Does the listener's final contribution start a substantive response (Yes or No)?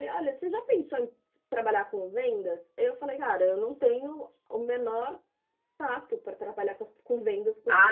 Yes